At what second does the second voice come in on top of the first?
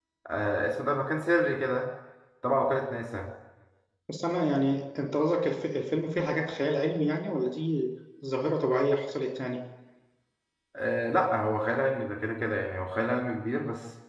none

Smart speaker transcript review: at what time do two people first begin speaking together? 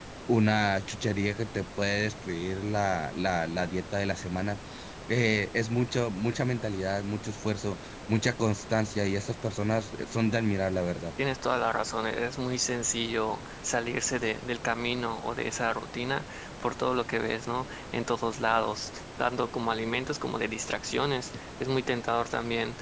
none

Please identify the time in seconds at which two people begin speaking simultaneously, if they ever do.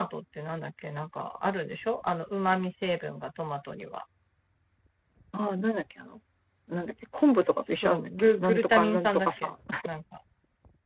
8 s

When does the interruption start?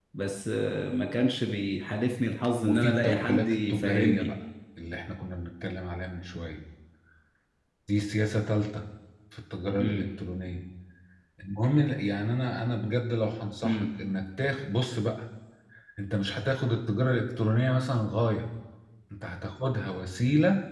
3 s

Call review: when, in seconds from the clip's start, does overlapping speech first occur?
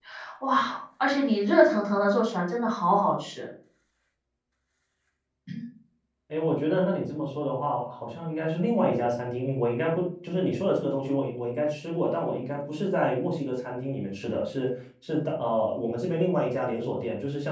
none

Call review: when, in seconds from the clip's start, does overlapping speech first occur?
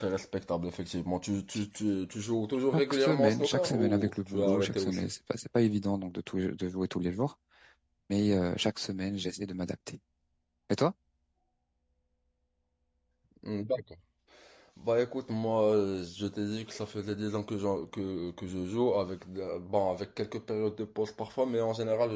3 s

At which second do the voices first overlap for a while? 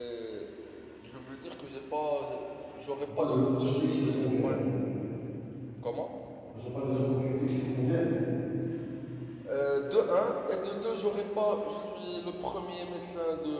3 s

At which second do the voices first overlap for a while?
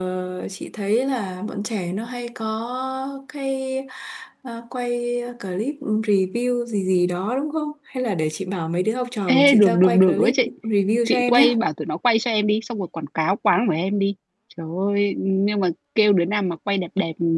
9 s

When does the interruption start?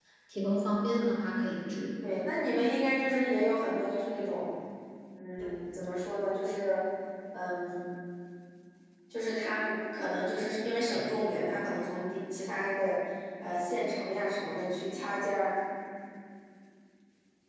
none

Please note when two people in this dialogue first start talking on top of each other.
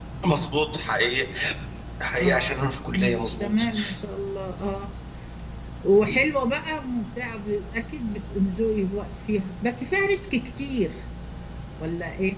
2 s

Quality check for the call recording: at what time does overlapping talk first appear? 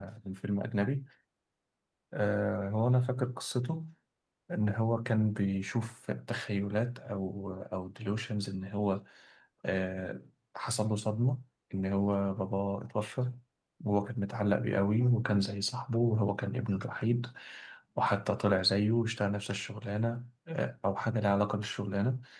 none

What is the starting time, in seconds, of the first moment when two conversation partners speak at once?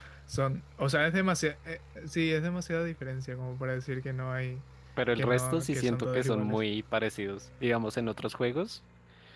5 s

